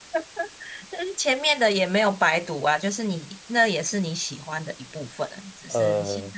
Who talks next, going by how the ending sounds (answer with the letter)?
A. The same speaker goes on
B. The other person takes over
A